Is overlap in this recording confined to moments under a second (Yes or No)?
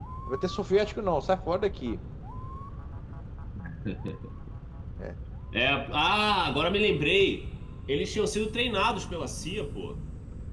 Yes